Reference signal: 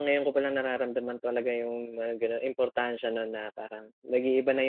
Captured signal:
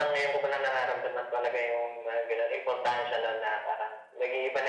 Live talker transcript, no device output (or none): none